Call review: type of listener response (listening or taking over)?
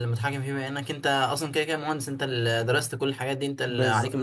taking over